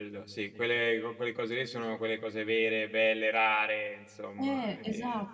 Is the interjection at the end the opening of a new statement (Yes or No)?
Yes